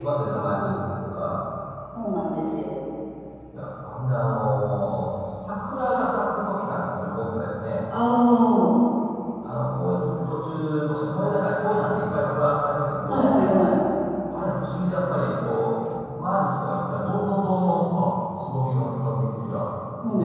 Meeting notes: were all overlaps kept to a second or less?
Yes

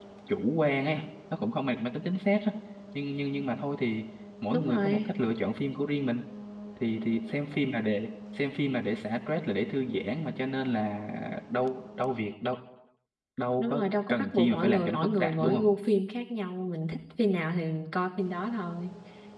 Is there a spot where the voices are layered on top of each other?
Yes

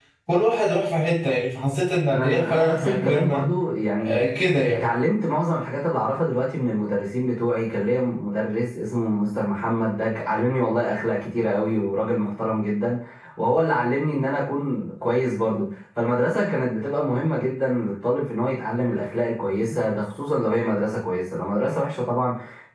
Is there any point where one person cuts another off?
Yes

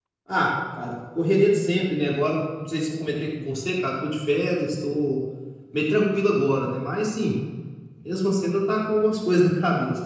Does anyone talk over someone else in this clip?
No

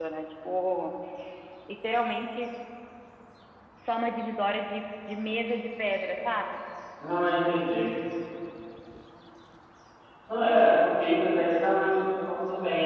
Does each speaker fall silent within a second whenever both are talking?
Yes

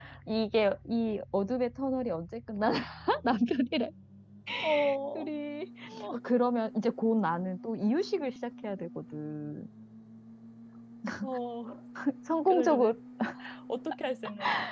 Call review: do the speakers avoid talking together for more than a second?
Yes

